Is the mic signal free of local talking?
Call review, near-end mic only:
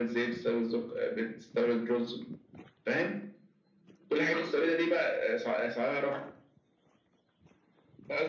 Yes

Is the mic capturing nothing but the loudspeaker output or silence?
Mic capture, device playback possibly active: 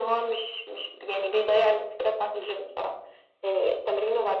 Yes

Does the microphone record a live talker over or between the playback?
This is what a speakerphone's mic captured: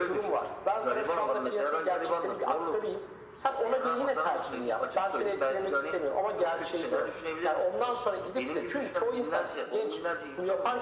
No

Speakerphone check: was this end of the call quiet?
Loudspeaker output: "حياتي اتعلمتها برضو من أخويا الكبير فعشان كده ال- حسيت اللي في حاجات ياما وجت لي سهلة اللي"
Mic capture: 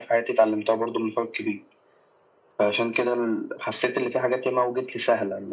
Yes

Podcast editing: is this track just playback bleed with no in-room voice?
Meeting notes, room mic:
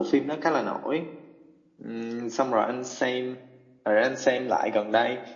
Yes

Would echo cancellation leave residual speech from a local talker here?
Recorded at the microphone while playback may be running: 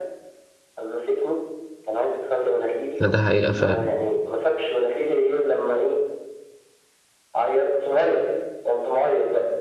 Yes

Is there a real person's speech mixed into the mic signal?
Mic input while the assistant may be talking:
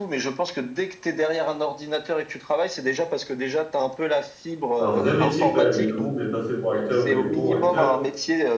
Yes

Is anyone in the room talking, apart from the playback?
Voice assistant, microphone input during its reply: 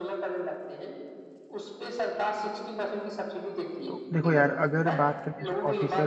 Yes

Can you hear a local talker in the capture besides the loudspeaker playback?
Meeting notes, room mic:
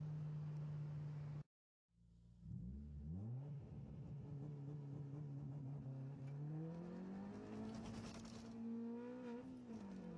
No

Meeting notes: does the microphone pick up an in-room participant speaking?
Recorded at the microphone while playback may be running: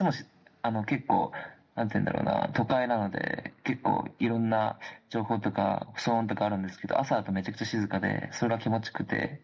No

